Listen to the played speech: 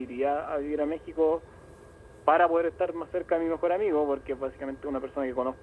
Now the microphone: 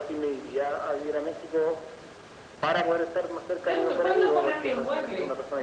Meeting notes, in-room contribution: present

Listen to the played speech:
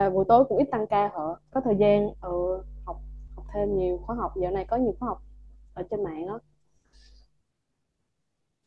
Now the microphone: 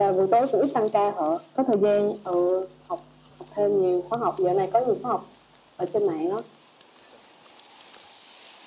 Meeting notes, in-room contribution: none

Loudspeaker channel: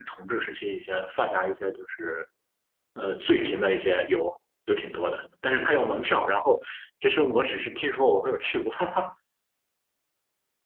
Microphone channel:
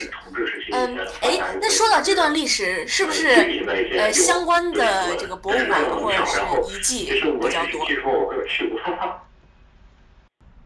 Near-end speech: present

